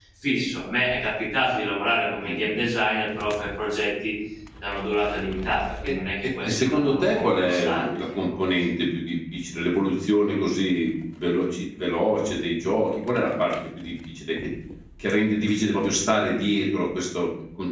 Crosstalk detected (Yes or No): Yes